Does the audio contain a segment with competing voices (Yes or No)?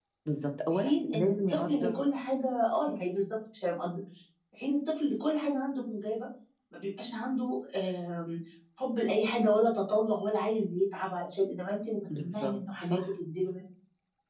Yes